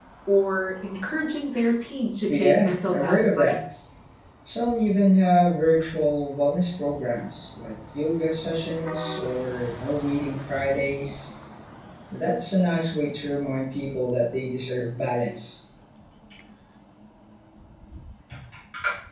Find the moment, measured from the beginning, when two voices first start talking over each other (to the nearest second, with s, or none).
2 s